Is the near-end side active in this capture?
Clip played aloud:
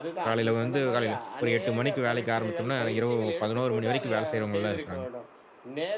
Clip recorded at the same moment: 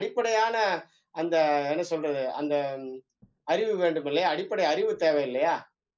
Yes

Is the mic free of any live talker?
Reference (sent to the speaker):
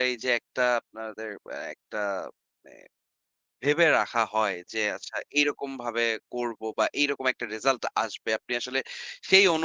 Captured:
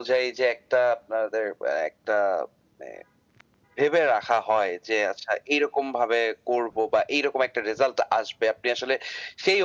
Yes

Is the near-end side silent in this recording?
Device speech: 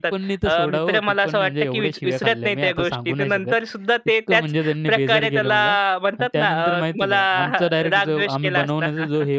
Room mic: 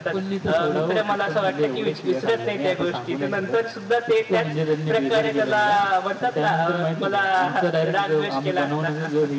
Yes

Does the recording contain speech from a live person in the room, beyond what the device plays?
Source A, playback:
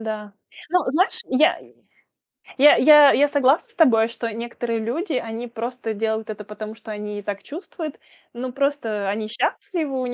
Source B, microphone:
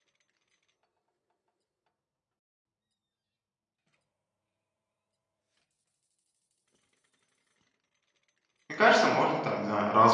Yes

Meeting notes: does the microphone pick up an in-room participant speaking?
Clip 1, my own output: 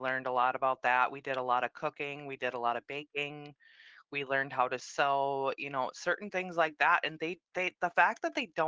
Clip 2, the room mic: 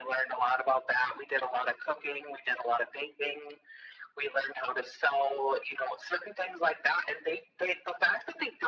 No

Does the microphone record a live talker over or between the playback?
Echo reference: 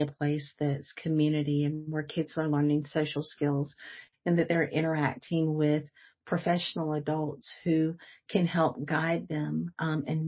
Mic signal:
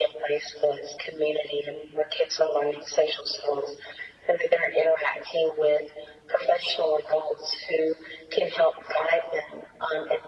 No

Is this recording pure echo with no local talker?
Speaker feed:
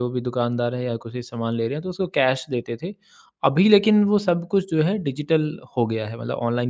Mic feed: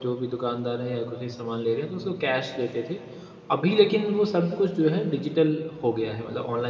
Yes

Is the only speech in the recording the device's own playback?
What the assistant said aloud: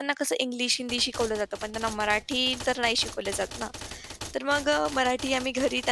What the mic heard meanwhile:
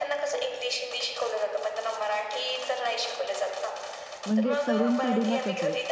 No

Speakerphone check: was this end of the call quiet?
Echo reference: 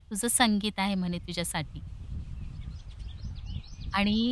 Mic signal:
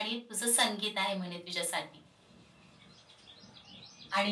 Yes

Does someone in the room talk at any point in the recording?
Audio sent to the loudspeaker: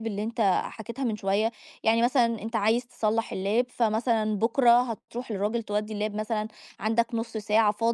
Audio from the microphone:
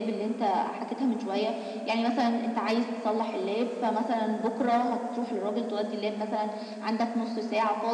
No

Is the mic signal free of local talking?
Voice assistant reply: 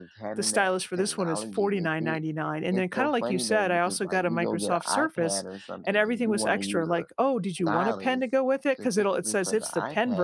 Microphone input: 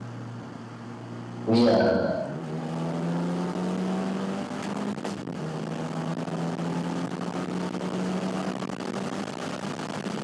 No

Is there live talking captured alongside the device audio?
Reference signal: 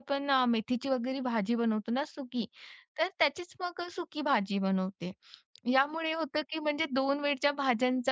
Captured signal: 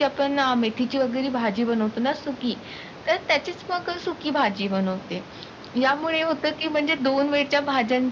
No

